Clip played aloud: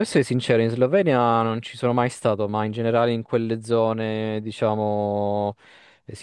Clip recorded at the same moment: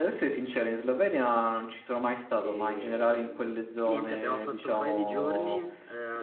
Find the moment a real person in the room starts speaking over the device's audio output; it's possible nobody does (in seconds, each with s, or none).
2.4 s